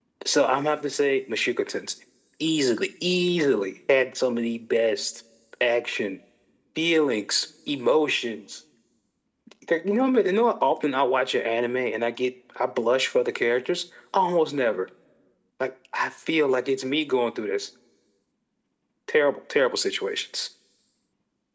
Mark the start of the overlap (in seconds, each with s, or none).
none